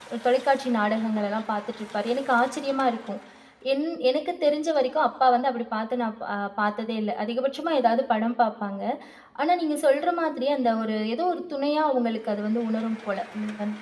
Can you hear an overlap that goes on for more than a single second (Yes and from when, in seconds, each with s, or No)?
No